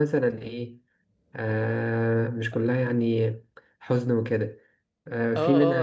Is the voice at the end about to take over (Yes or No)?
Yes